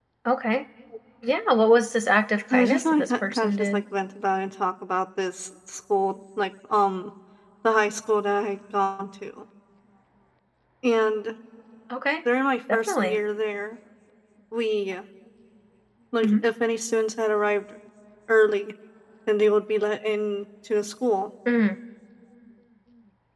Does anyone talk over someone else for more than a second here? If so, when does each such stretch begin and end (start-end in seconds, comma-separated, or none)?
2.5-3.8